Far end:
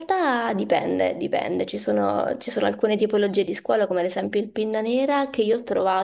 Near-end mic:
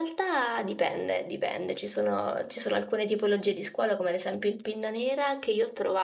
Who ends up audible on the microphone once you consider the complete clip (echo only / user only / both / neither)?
echo only